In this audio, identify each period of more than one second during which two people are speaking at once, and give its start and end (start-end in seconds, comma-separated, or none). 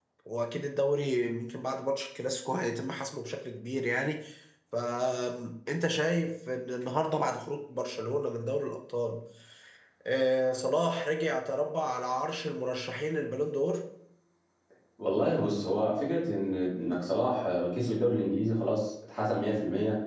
none